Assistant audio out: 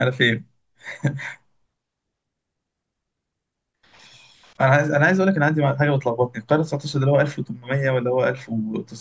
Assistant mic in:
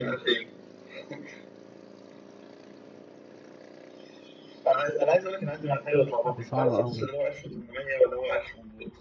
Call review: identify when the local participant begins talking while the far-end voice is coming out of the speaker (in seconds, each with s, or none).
6.3 s